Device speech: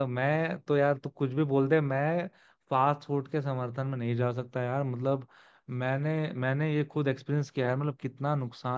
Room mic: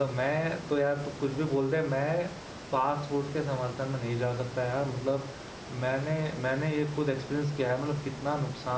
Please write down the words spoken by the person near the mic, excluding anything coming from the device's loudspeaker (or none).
none